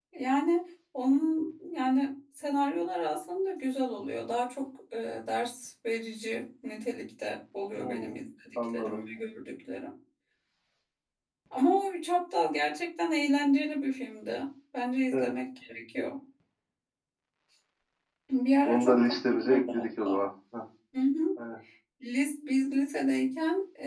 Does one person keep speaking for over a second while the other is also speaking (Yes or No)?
Yes